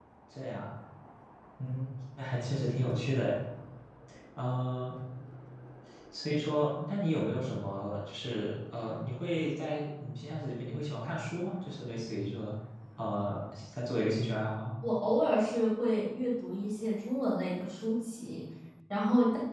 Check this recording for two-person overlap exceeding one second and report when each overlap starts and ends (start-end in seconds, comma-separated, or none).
none